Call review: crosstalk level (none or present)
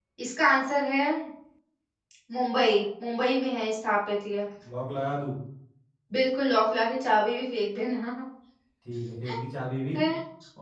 none